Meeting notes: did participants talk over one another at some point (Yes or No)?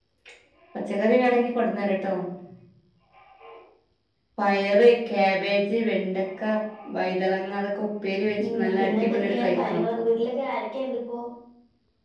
Yes